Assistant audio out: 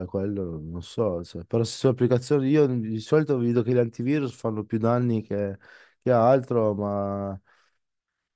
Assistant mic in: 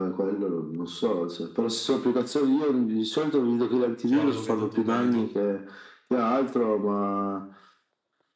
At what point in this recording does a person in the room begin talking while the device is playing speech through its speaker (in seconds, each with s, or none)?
4.0 s